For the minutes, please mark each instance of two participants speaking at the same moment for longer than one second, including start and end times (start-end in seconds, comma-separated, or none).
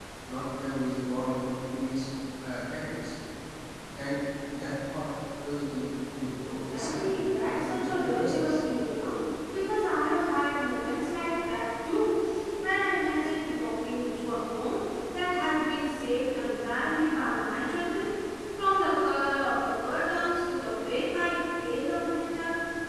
6.5-8.6